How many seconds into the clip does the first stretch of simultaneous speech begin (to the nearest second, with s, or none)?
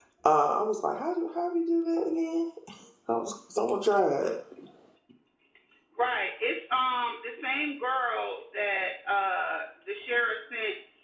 none